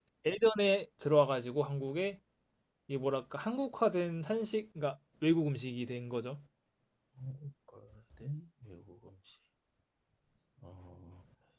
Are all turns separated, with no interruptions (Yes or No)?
Yes